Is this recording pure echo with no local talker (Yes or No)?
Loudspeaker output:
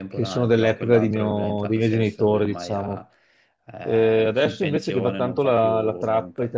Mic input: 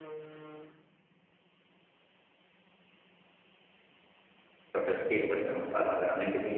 No